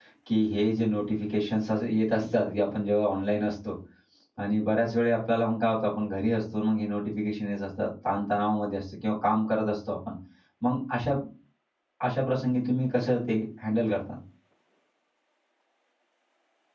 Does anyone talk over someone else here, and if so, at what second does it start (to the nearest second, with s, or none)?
none